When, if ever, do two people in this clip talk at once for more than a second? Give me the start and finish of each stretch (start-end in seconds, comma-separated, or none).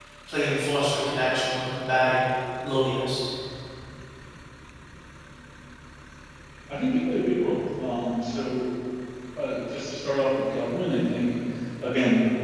none